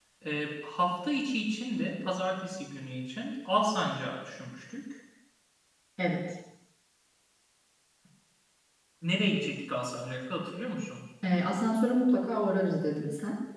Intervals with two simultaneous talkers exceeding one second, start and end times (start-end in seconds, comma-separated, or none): none